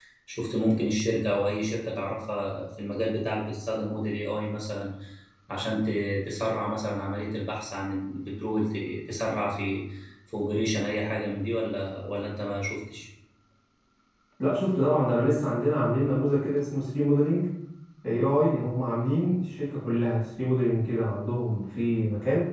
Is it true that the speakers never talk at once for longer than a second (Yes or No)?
Yes